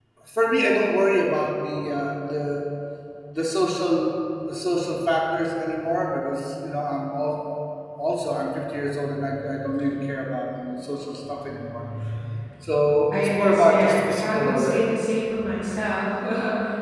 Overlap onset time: 13.1 s

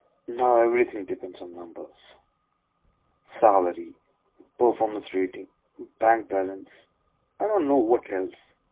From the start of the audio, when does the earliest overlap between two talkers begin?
none

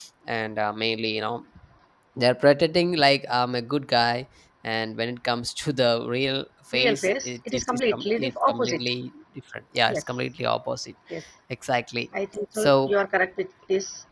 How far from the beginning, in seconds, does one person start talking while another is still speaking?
6.7 s

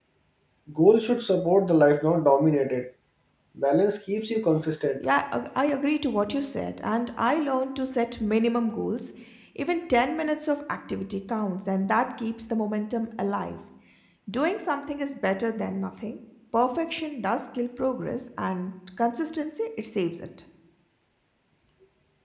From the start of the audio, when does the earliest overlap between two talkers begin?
none

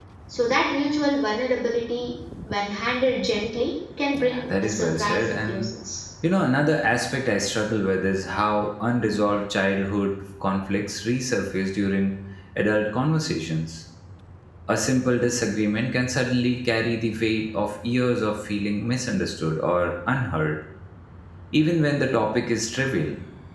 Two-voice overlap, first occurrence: 4.1 s

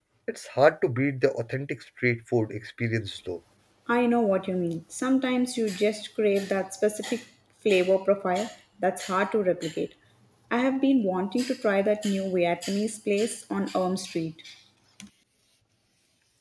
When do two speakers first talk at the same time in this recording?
none

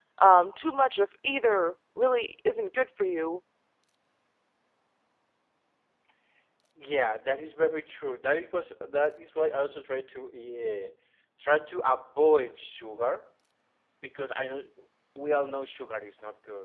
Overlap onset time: none

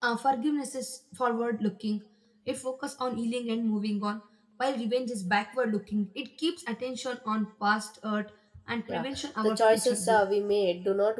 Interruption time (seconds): 8.9 s

